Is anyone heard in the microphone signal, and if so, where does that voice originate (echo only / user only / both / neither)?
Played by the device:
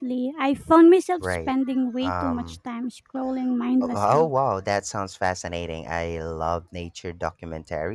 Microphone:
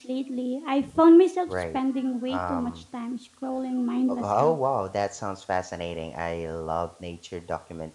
echo only